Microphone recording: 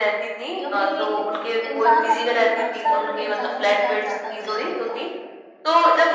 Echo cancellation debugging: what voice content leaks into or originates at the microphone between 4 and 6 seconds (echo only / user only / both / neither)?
both